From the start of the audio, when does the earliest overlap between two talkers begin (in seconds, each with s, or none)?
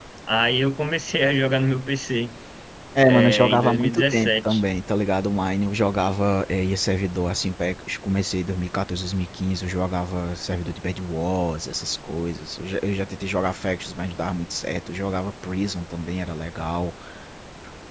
3.0 s